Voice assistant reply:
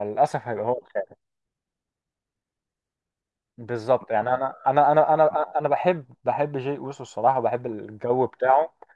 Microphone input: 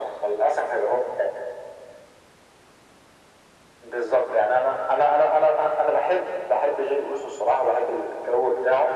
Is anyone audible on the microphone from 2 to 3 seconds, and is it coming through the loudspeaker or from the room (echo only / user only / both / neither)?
neither